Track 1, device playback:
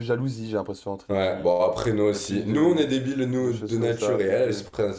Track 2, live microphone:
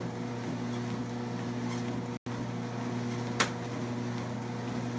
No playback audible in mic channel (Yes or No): Yes